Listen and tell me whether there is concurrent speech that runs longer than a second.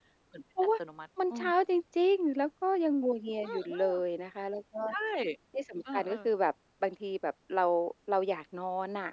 No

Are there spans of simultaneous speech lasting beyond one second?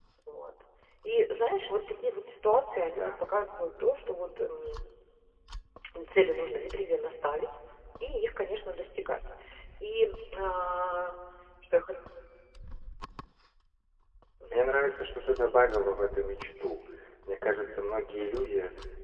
No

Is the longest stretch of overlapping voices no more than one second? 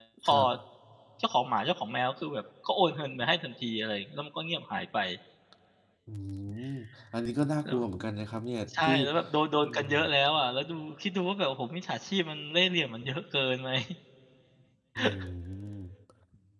Yes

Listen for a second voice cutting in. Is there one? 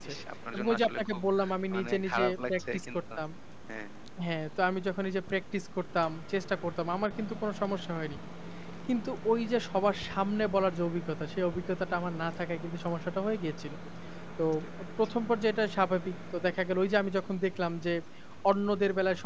Yes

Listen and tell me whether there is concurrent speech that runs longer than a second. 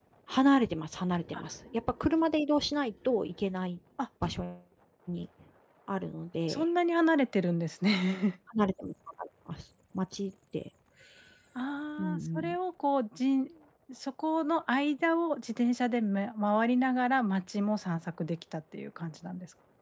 No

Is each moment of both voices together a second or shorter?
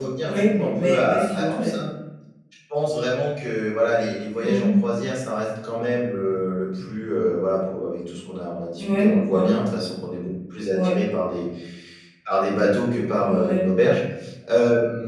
No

